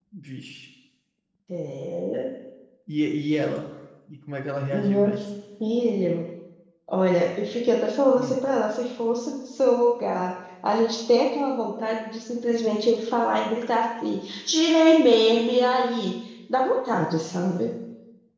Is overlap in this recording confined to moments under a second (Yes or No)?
Yes